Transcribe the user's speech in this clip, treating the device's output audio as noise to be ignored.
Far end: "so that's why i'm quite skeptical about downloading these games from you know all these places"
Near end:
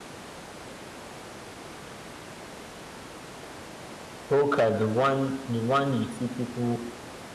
Poker, the one, the one you see people.

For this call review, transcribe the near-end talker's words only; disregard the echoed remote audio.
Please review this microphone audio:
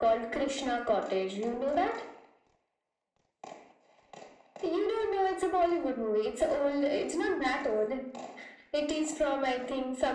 none

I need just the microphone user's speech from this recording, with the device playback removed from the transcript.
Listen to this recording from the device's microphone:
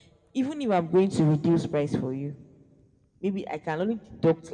none

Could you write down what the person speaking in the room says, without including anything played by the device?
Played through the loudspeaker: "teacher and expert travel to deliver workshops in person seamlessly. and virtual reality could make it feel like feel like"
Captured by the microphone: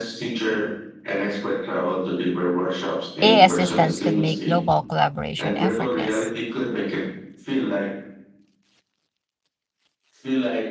AI assistance could make global collaboration effortless.

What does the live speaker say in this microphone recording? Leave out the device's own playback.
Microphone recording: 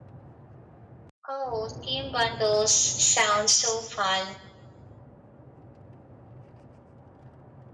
Oh, team bundles sound so fun.

